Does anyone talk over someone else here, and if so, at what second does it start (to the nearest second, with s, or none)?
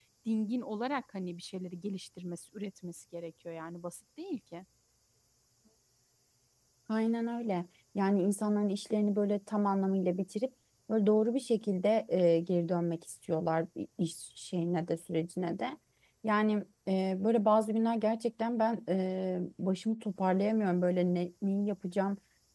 none